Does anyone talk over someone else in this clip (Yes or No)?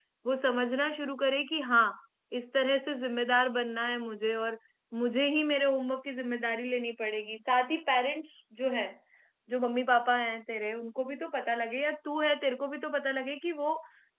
No